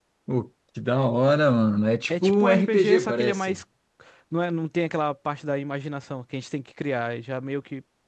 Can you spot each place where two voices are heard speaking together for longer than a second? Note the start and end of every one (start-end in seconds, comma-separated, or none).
2.1-3.6